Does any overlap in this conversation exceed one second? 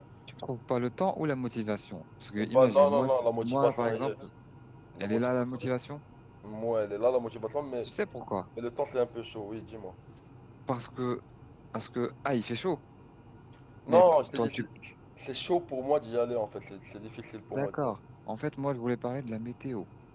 Yes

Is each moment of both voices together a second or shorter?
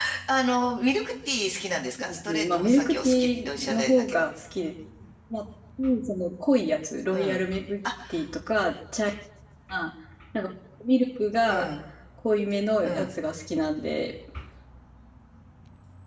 No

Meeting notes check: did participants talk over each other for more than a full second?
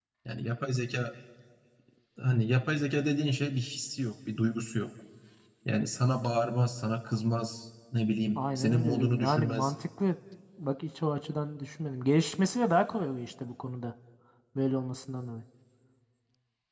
Yes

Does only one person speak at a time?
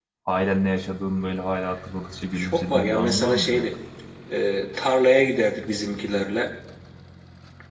No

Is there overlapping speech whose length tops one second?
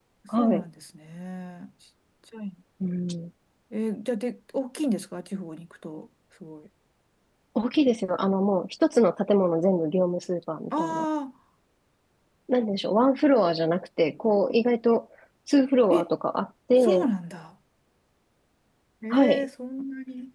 No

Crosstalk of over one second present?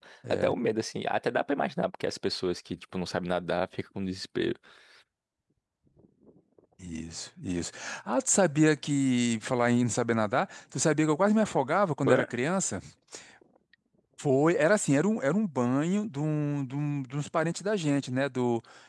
No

